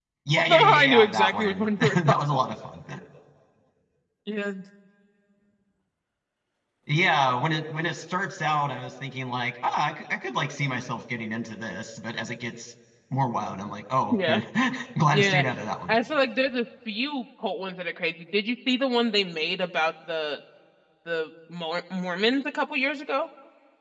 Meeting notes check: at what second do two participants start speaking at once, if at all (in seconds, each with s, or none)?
0.5 s